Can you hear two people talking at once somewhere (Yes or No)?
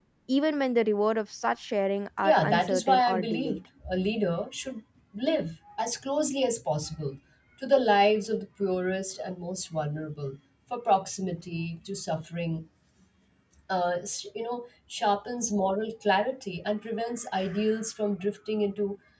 Yes